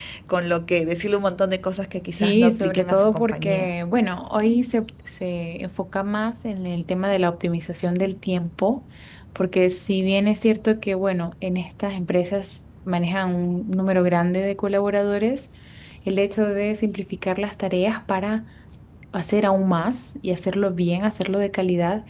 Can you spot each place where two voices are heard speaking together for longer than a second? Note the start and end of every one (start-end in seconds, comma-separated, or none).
2.1-3.7